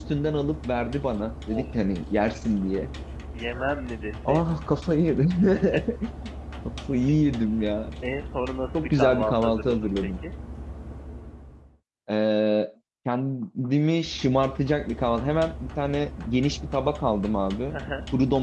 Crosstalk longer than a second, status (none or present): present